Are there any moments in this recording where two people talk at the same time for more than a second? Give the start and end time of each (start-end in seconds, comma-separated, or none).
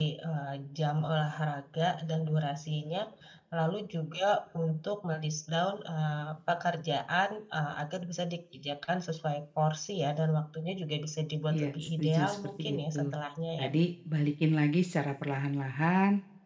11.5-13.1